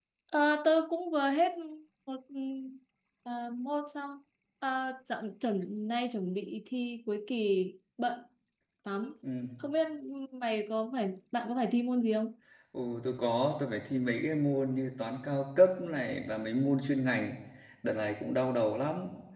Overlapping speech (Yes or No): No